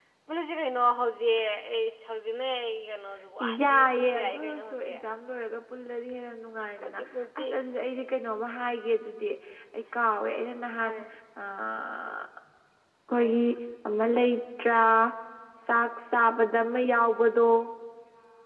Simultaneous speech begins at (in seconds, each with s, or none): 3.4 s